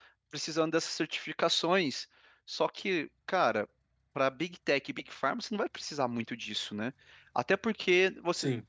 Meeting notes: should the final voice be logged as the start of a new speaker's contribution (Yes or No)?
No